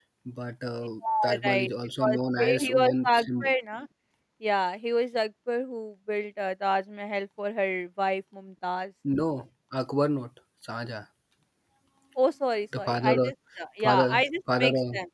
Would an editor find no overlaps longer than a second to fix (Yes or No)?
No